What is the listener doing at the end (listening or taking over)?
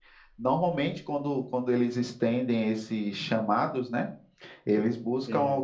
listening